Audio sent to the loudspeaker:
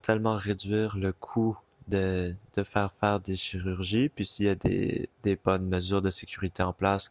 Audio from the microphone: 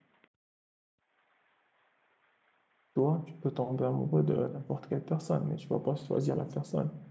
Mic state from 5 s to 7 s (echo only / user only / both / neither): user only